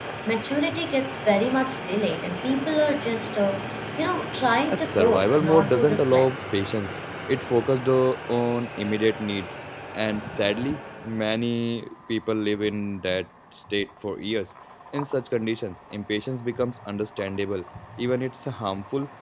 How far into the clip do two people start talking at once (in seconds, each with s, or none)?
4.7 s